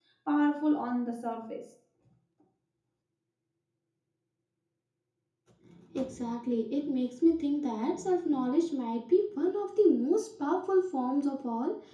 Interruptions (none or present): none